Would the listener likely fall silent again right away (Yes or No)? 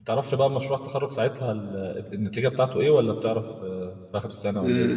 No